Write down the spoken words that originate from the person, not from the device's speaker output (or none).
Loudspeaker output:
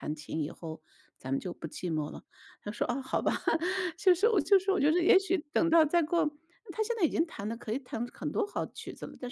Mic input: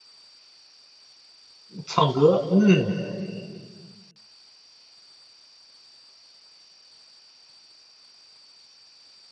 唱歌，嗯，